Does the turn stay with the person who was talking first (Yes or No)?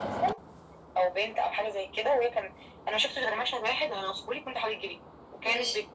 Yes